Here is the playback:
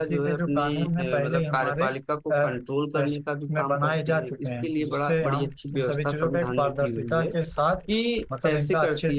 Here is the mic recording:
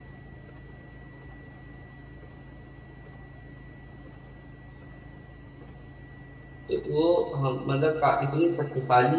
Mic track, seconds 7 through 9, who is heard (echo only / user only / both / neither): user only